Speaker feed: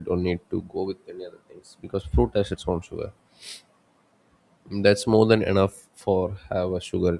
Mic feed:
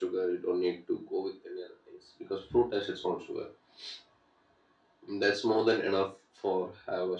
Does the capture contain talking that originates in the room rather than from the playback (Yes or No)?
No